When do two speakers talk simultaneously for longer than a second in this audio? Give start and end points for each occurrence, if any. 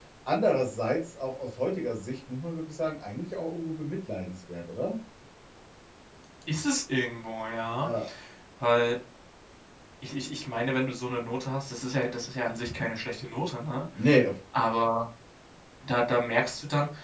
none

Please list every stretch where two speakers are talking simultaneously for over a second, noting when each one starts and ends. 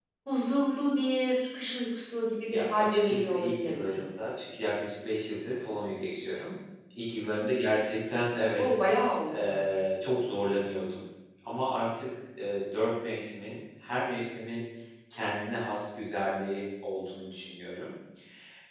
2.5-3.9

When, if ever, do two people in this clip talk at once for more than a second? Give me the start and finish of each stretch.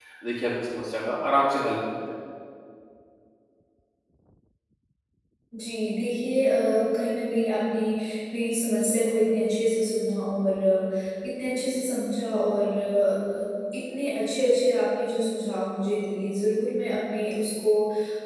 none

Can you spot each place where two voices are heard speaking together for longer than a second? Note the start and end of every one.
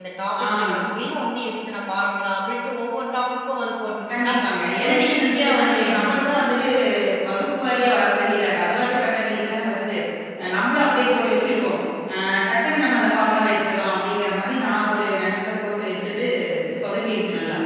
4.8-6.6

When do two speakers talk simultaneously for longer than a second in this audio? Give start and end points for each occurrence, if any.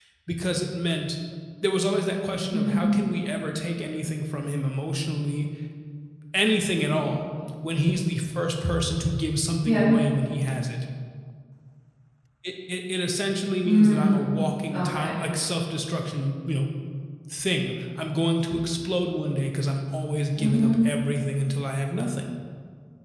13.6-15.2

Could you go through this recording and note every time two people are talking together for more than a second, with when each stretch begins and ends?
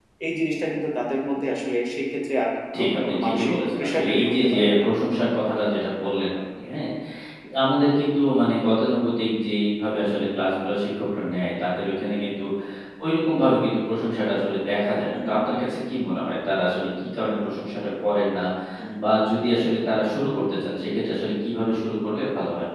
2.9-4.8

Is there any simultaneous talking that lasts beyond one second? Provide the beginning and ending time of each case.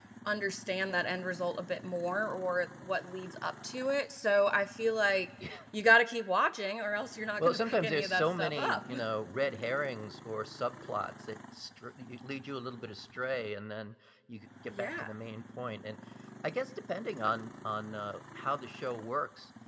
7.4-8.8

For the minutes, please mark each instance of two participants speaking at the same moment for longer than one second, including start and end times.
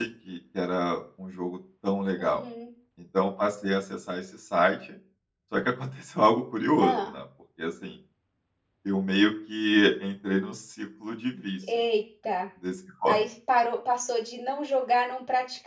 none

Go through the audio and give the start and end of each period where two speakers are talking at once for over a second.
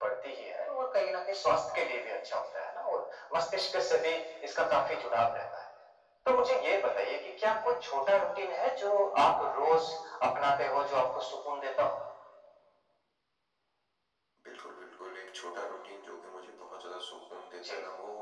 none

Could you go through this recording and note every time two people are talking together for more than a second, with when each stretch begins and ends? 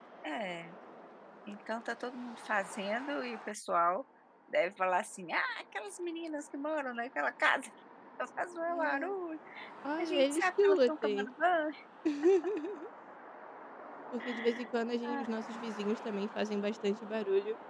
10.0-11.3

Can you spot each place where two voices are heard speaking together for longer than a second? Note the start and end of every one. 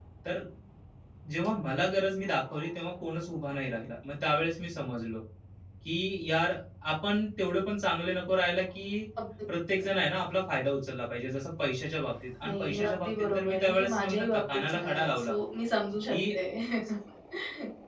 12.5-15.3

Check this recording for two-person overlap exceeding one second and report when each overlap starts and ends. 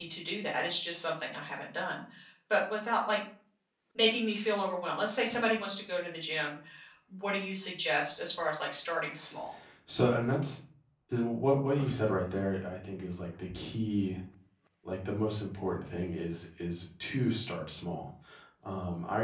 none

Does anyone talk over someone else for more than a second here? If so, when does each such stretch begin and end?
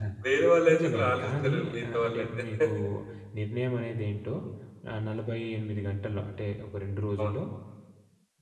0.7-2.3

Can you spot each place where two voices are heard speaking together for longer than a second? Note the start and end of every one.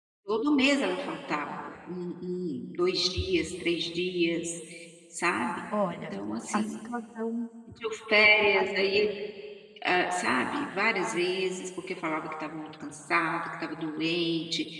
none

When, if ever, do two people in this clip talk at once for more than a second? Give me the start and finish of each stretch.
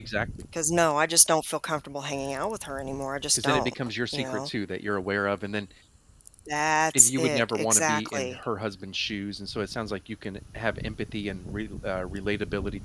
6.9-8.4

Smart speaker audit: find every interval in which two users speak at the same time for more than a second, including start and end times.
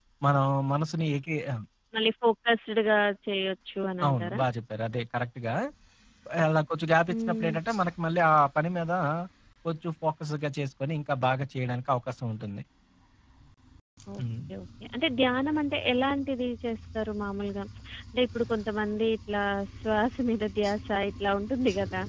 none

